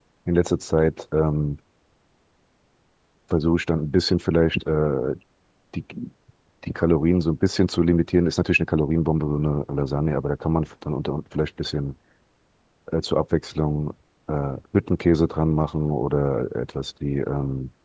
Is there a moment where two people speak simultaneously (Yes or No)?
No